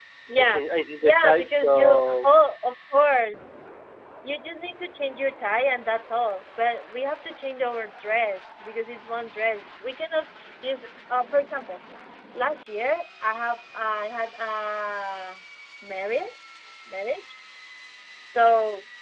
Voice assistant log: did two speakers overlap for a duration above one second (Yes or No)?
Yes